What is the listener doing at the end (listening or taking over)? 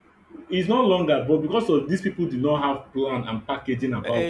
listening